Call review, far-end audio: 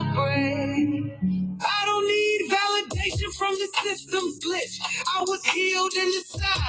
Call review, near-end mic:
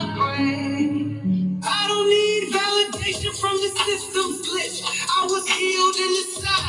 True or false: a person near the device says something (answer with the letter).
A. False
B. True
A